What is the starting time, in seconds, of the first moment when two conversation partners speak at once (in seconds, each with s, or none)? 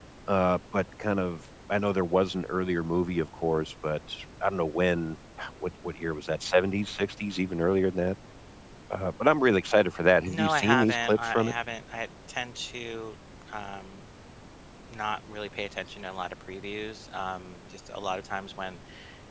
10.3 s